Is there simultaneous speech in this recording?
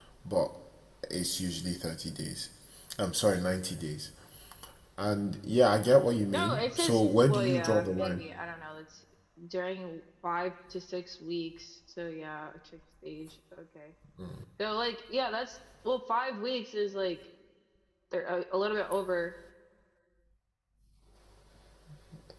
Yes, from 6.3 s

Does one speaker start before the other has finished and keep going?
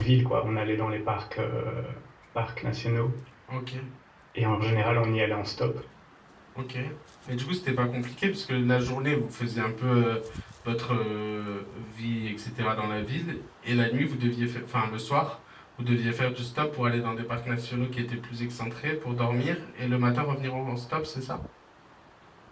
No

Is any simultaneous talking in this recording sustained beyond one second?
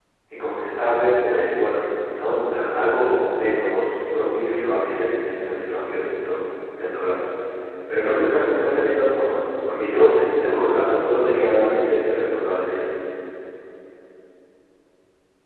No

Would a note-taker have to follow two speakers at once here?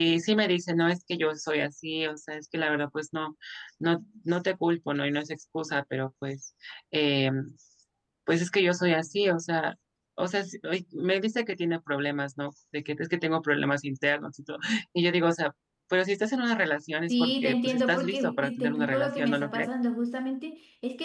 Yes, from 17.1 s

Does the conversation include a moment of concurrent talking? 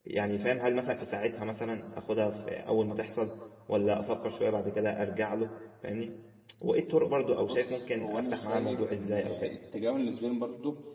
Yes, from 7.5 s

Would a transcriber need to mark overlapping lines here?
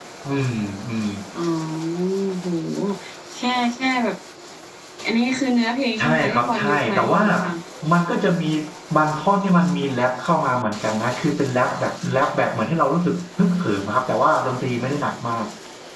Yes, from 6.0 s

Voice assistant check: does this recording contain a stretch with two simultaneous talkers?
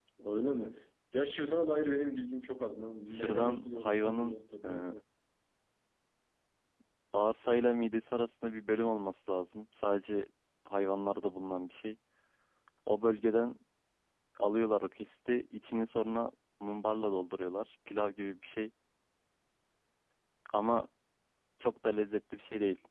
Yes, from 3.1 s

